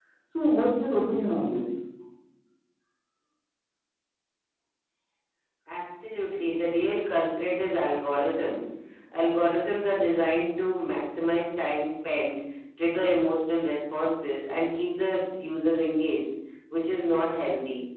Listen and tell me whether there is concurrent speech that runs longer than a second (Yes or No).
No